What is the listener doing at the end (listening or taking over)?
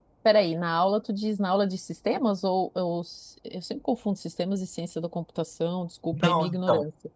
taking over